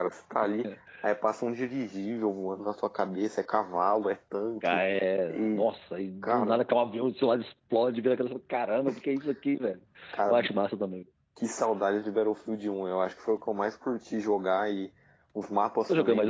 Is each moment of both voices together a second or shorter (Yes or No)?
Yes